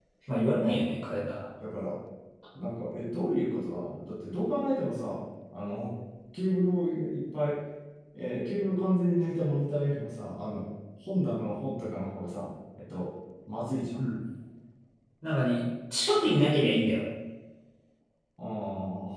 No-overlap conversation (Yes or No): Yes